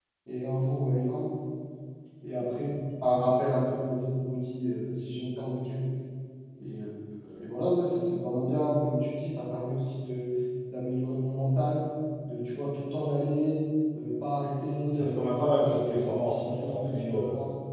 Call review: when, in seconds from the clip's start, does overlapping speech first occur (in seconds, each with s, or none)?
14.9 s